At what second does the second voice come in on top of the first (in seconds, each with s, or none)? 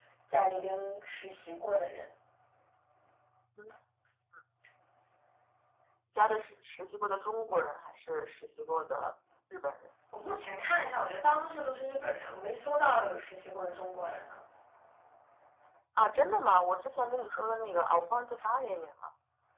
none